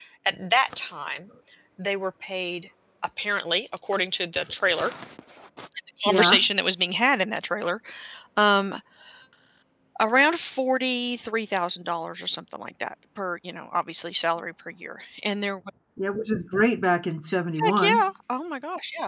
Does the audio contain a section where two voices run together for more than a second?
No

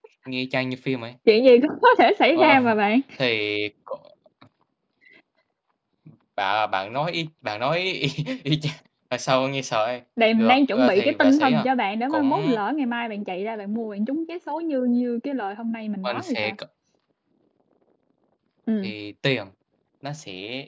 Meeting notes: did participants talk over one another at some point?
Yes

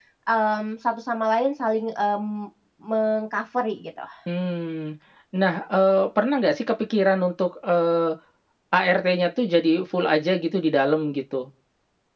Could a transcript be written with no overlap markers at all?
Yes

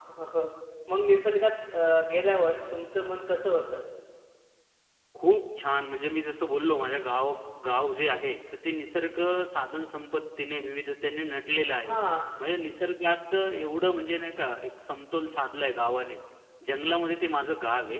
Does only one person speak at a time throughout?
Yes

